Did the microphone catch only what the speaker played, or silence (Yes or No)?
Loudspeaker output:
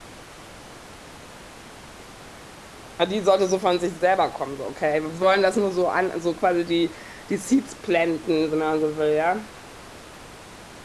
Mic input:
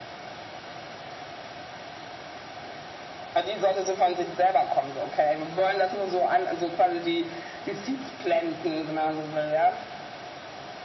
Yes